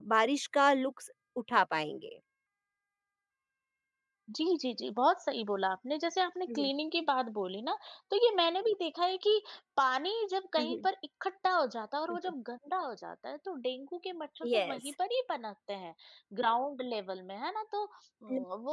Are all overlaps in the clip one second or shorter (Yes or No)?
Yes